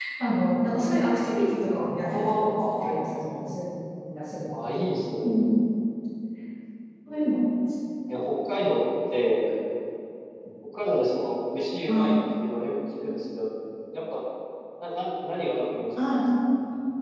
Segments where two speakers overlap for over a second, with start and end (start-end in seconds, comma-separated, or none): 2.0-3.6